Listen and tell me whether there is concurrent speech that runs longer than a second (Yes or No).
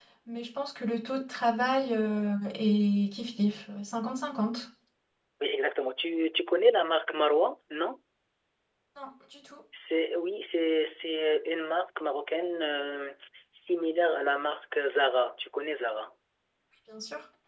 No